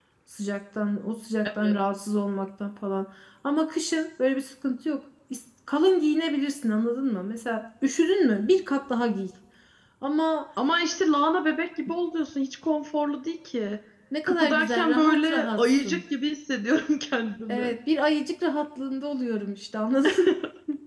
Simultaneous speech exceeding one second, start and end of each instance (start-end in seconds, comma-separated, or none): 14.2-16.0